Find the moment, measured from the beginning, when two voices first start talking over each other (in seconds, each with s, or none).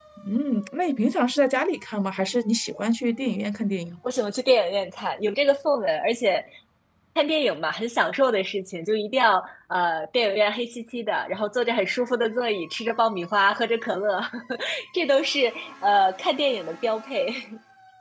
none